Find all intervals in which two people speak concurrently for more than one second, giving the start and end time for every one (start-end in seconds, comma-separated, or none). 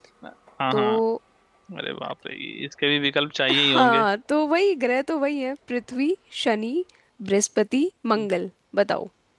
none